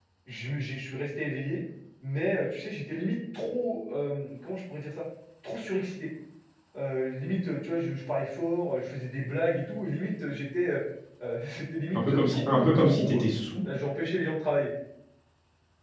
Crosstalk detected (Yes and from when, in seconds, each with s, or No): Yes, from 11.9 s